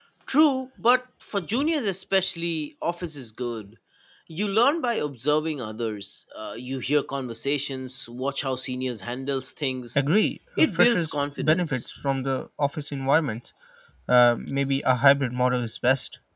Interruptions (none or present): present